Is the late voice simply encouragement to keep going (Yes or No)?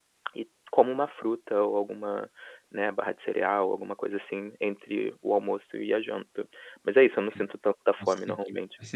No